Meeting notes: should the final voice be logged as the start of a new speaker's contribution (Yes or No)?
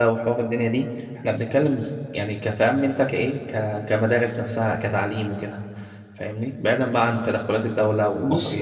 Yes